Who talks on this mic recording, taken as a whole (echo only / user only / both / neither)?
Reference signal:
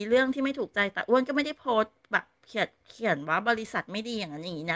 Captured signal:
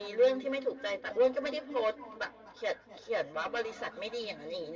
echo only